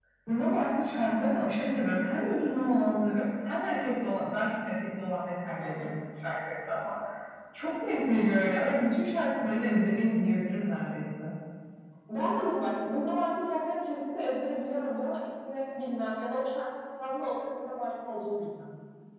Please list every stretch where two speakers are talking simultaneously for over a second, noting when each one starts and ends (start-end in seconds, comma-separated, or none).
none